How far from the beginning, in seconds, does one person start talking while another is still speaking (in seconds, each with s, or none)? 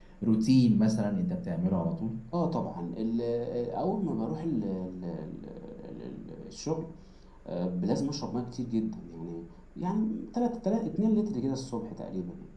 none